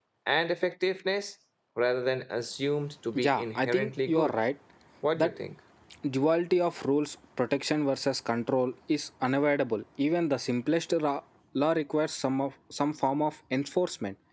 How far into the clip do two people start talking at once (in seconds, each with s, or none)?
3.1 s